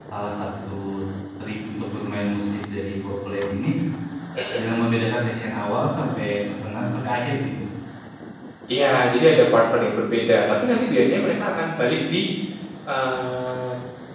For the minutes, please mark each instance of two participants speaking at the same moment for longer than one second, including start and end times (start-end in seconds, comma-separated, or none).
none